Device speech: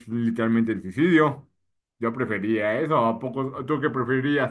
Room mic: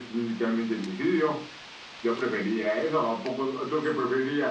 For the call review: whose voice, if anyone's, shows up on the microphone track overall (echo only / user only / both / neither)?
echo only